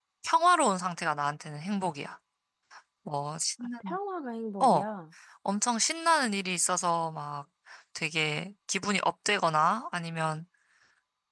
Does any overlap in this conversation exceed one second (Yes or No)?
No